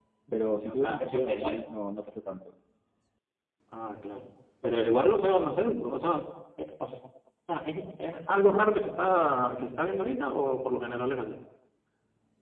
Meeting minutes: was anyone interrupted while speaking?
Yes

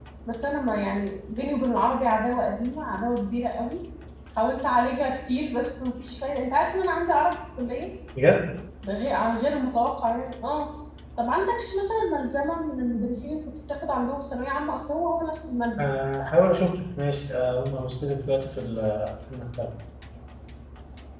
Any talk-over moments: No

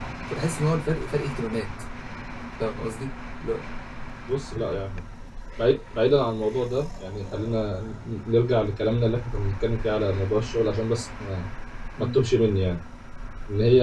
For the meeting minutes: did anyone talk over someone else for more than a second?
No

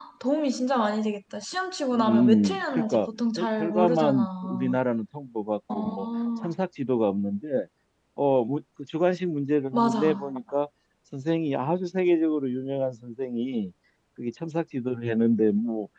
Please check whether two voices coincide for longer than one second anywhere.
Yes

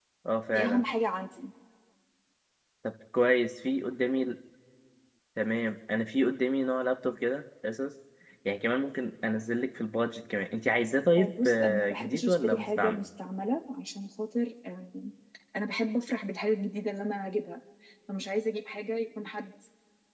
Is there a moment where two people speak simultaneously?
Yes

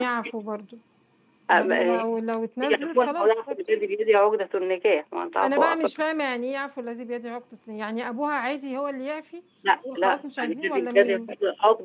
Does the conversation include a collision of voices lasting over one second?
Yes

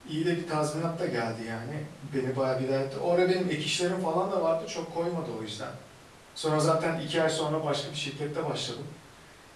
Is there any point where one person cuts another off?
No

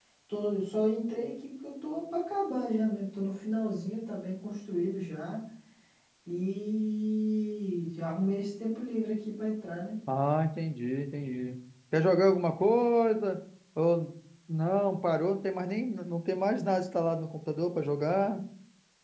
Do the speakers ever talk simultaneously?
No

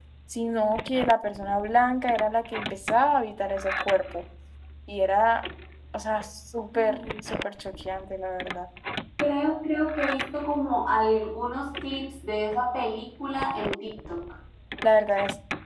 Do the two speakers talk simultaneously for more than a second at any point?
No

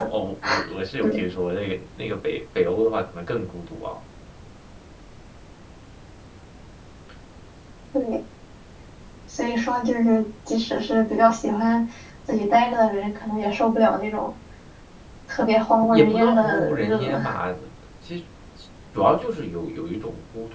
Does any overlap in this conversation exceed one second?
Yes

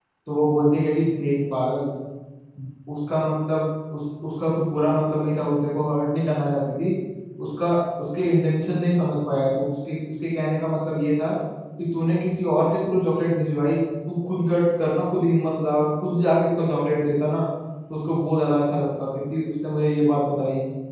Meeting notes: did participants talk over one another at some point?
No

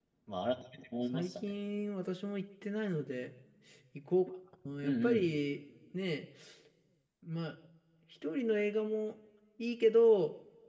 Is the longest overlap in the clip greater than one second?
No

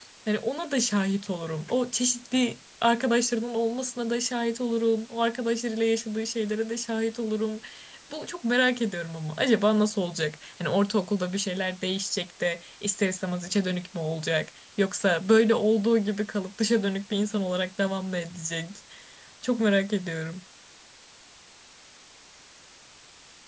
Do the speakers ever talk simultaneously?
No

